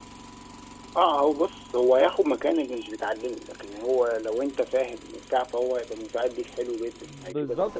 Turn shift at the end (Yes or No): Yes